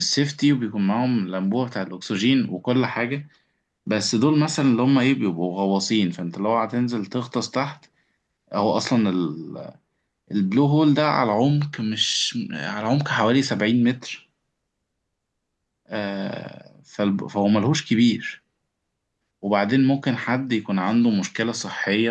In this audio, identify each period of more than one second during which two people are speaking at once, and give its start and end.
none

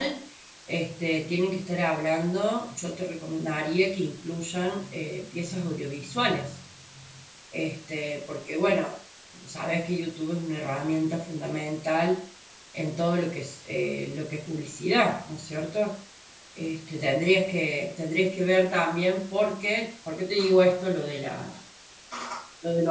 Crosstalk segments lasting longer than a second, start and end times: none

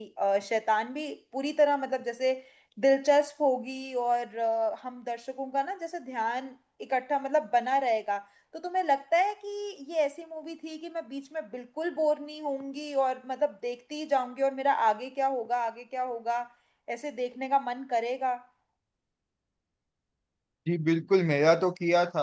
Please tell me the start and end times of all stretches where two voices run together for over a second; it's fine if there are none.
none

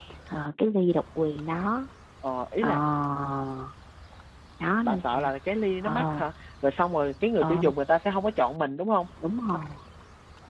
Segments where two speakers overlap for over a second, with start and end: none

